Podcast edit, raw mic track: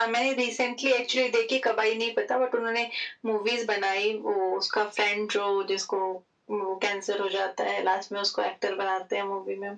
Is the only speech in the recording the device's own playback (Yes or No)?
Yes